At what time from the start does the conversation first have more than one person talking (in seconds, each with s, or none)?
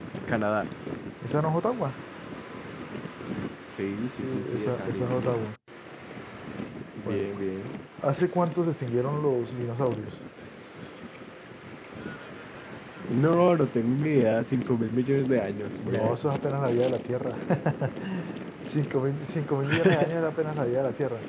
4.1 s